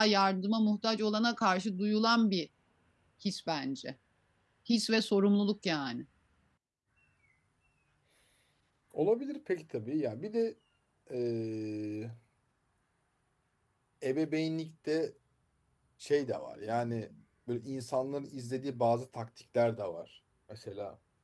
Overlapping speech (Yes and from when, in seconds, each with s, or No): No